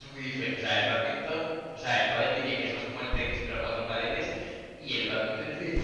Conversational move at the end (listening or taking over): listening